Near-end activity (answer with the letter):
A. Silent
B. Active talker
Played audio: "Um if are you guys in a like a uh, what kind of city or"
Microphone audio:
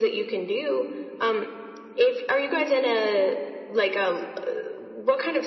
A